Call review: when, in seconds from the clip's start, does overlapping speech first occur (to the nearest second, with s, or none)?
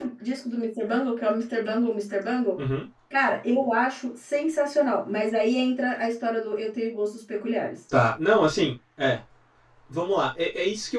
none